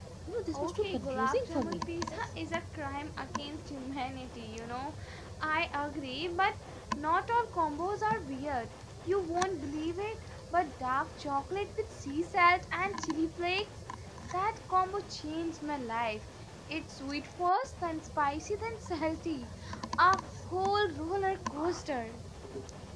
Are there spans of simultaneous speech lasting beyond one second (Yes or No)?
Yes